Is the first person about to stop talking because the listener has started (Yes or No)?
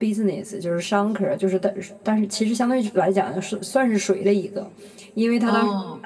No